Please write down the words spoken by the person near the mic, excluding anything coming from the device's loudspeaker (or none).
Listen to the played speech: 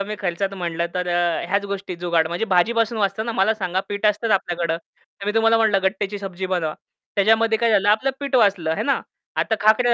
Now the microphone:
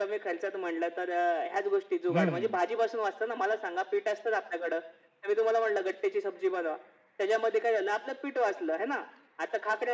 हं, हं.